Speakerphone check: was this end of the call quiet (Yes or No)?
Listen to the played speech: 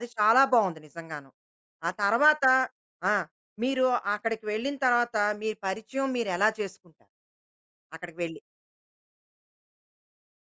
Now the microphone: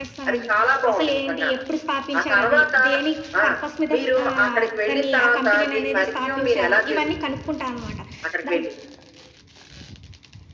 No